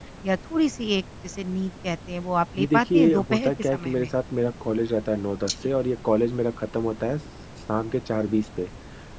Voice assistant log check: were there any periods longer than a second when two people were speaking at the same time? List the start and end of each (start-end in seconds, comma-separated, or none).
2.6-4.1